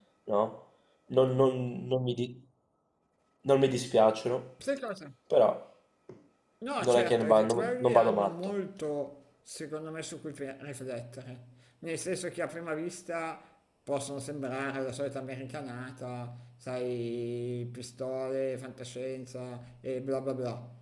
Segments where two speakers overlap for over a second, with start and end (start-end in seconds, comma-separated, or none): 6.8-8.5